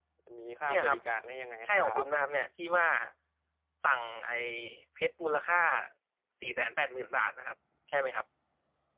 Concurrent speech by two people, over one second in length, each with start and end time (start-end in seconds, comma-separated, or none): none